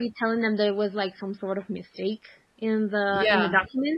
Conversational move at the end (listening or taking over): listening